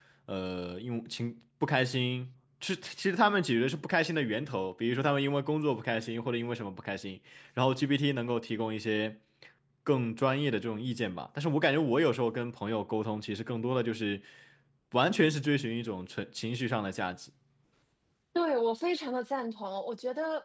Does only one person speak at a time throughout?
Yes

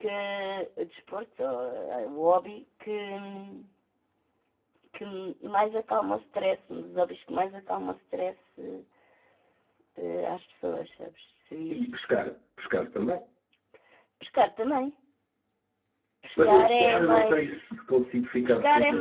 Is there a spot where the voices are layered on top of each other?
Yes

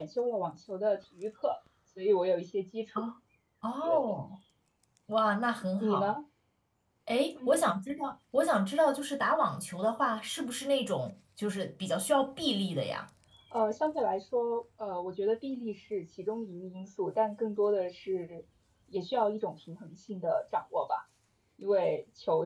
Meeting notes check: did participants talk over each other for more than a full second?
No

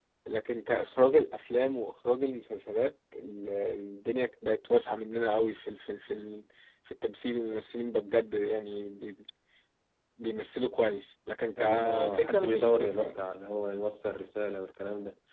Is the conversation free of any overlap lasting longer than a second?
No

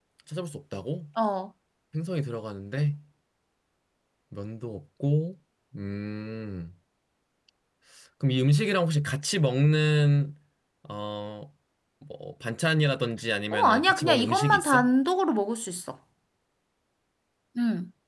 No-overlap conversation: No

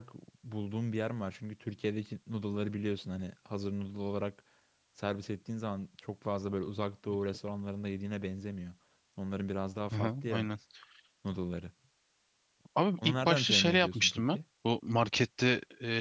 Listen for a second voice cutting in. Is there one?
Yes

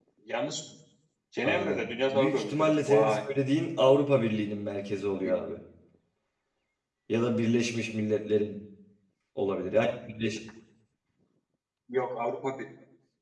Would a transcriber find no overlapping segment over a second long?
No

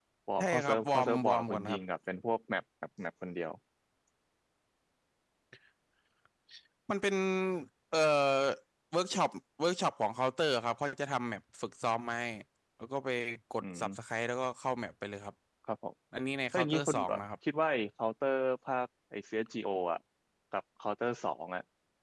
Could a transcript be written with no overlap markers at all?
No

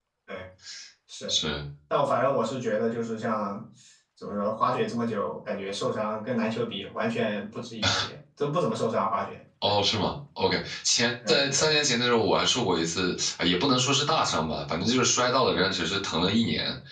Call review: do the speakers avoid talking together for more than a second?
Yes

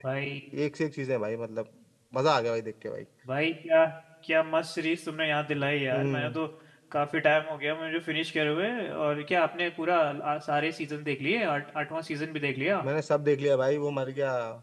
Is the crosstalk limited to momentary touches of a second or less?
Yes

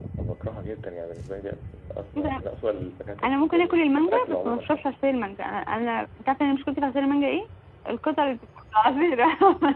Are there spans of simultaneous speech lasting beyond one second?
Yes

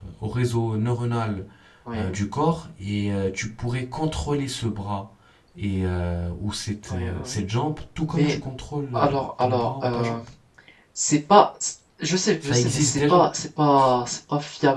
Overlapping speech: Yes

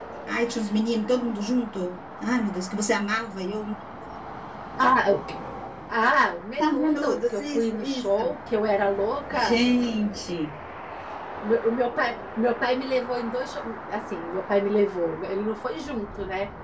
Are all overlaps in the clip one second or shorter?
No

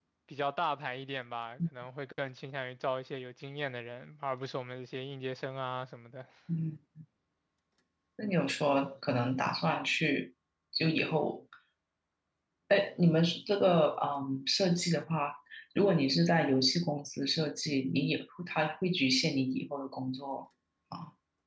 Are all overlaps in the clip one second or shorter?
Yes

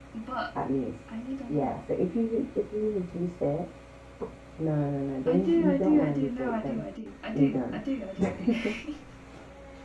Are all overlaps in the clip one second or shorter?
No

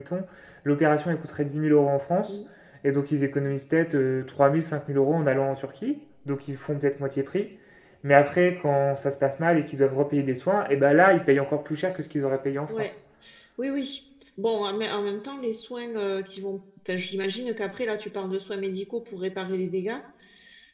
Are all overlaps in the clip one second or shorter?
Yes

